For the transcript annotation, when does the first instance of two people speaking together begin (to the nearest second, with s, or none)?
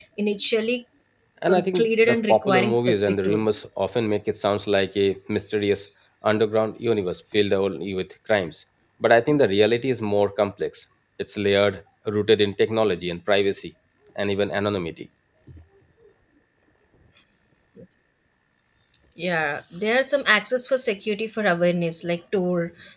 2 s